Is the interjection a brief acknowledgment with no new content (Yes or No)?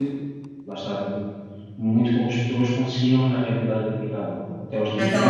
No